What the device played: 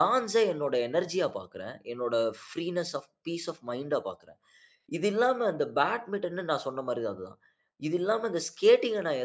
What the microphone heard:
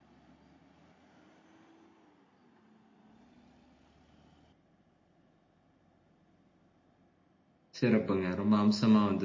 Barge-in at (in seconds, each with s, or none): 7.8 s